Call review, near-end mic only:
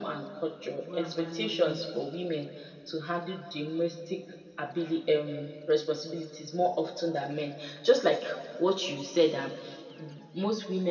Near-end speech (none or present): present